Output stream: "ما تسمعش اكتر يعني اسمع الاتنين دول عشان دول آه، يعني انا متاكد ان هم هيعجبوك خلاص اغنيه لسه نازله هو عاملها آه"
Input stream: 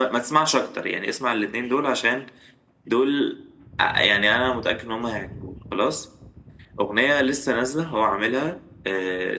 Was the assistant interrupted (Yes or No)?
No